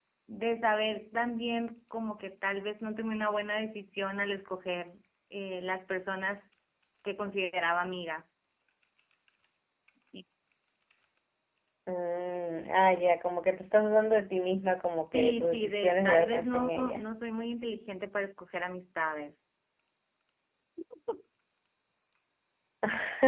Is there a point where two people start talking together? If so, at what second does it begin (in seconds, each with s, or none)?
15.1 s